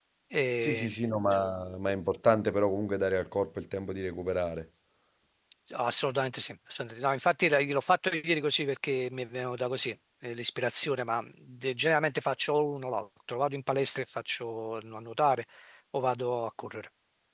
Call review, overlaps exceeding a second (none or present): none